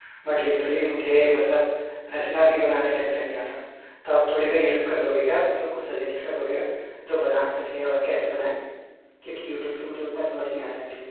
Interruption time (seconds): none

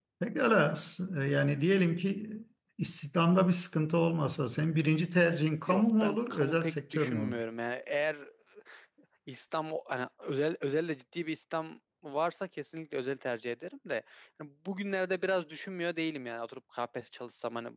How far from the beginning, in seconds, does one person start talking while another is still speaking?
5.7 s

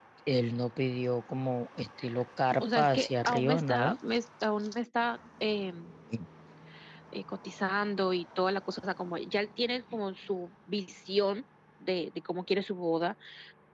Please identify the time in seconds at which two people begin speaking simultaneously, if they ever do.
2.6 s

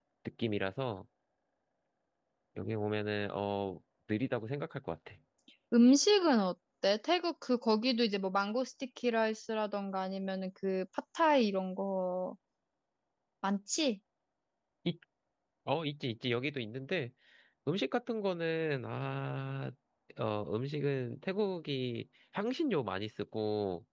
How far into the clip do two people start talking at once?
none

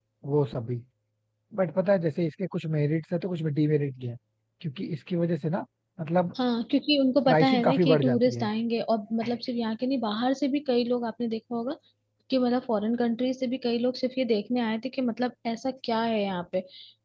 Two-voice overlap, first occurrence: 7.3 s

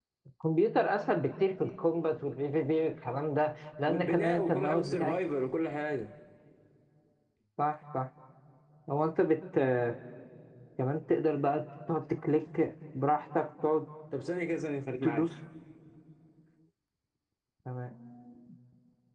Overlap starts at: 3.9 s

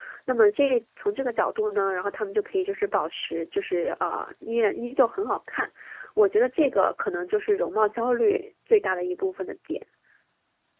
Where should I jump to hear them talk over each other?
none

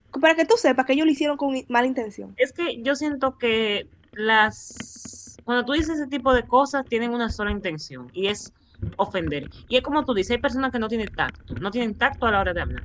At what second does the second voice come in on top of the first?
none

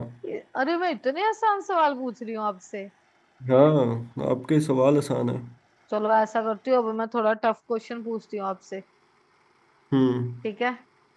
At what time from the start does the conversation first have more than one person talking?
none

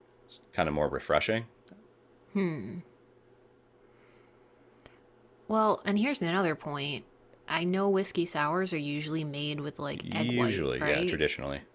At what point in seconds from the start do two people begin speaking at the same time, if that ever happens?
9.9 s

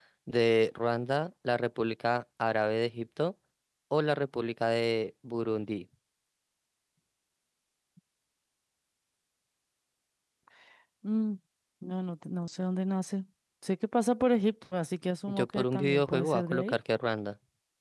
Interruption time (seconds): 15.3 s

